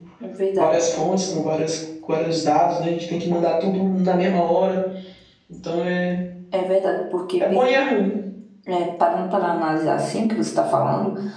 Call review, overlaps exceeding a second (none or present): none